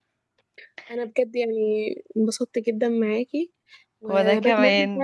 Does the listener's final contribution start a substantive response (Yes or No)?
No